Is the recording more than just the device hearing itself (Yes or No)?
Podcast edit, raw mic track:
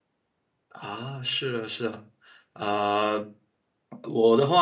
Yes